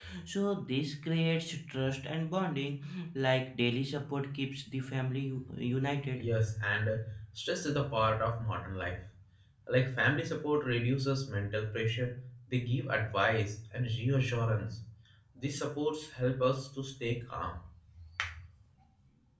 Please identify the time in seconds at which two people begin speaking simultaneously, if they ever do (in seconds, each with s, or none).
none